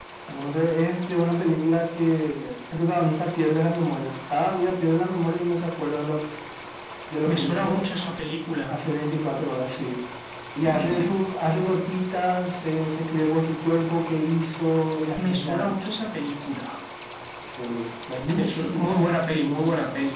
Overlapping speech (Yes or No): Yes